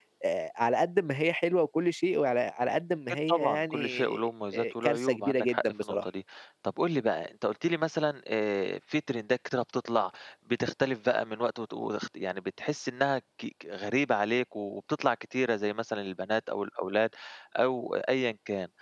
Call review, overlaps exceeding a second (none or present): present